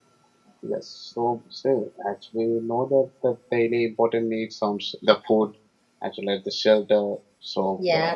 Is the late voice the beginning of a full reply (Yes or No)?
Yes